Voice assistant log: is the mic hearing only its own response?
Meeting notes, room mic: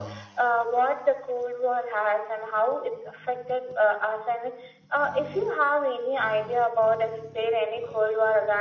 Yes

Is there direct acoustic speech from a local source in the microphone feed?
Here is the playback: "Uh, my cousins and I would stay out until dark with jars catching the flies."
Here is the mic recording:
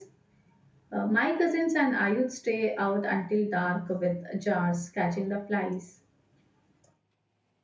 No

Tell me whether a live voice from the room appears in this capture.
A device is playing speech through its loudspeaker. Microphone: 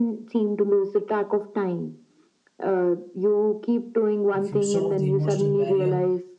Yes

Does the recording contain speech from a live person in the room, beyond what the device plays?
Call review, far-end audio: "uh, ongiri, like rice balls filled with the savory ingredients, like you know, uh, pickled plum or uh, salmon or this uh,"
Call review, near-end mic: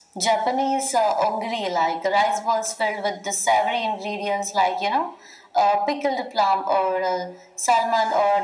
No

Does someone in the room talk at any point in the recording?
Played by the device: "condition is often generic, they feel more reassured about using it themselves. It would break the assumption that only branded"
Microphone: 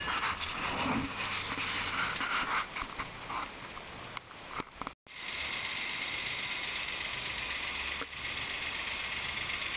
No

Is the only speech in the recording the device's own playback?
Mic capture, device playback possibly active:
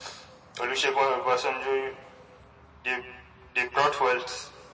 Yes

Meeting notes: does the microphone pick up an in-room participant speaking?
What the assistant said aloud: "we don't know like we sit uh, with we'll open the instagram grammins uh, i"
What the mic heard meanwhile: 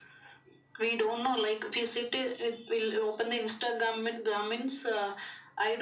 No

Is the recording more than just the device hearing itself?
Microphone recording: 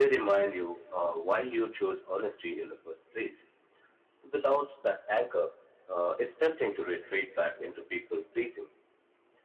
No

